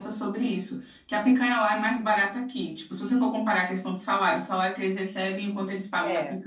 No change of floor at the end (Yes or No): Yes